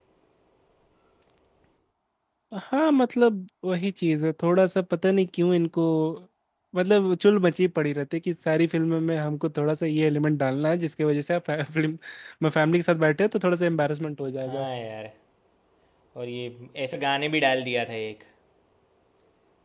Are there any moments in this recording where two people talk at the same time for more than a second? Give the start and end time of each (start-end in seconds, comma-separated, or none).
none